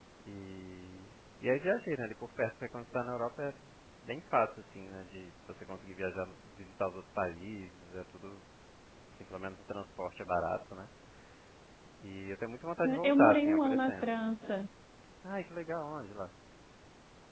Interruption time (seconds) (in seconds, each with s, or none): 12.8 s